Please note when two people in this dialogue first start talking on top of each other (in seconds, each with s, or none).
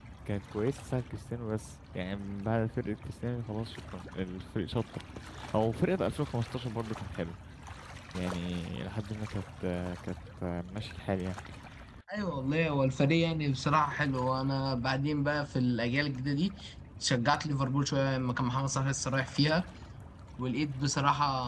none